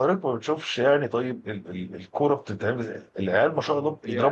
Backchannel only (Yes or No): Yes